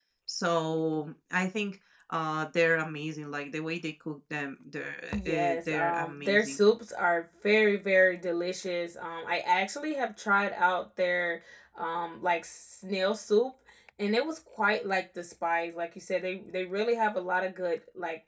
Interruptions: present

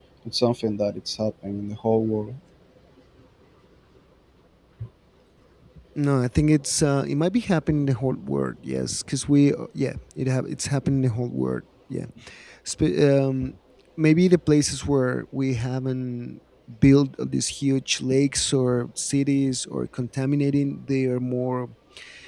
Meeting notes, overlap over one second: none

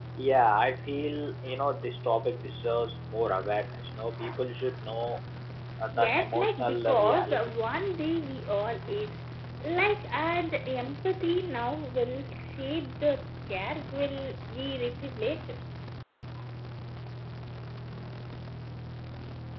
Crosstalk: present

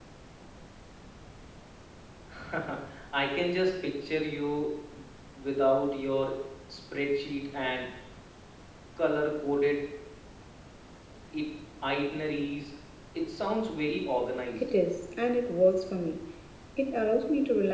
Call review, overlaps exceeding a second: none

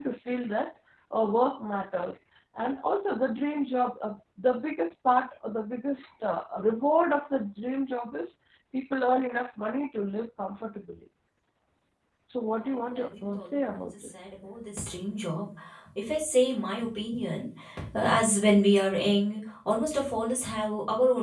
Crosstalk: present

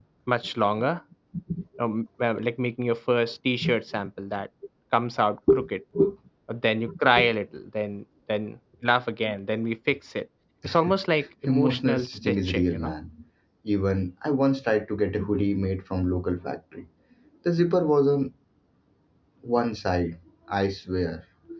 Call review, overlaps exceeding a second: present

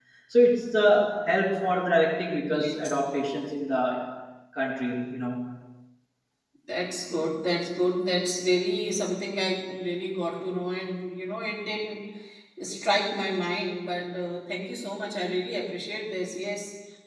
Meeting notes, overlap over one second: none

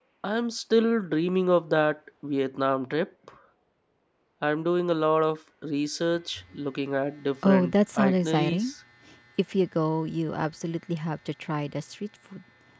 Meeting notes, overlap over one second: present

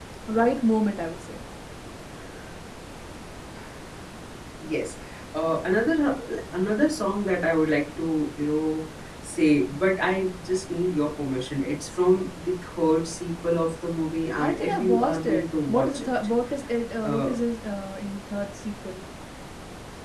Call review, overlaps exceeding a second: present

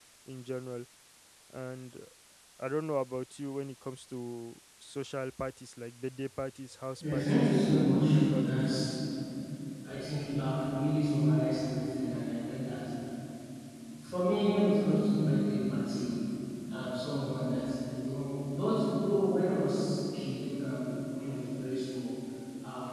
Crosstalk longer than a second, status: present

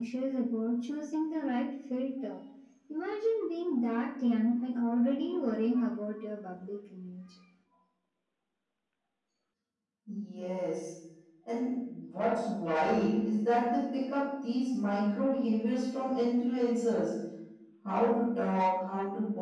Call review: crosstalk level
none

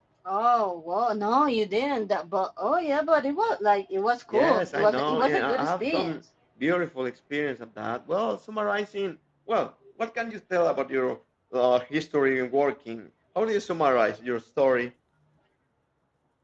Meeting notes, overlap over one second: present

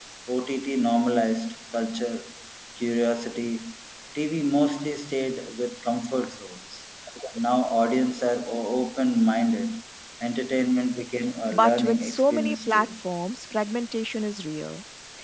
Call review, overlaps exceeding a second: present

